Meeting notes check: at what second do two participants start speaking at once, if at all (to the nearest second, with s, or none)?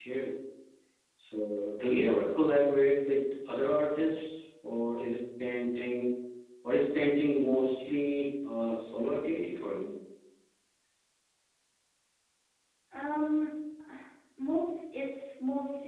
none